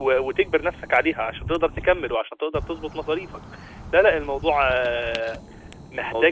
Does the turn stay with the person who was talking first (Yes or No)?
Yes